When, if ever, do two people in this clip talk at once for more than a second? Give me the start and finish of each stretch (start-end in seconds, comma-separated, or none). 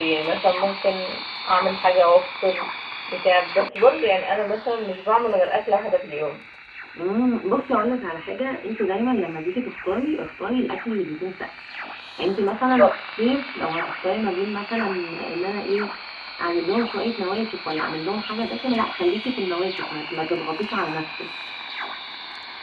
none